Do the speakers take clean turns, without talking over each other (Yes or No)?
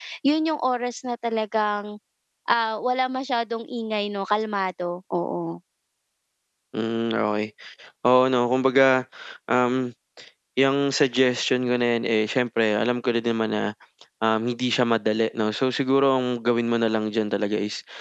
Yes